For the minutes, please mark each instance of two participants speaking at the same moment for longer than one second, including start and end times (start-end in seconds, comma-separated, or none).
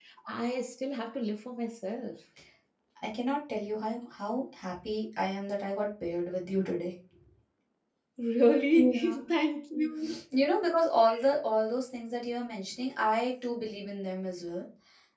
none